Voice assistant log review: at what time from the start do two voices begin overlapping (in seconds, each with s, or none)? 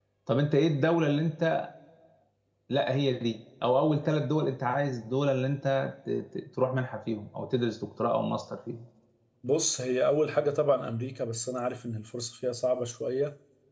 none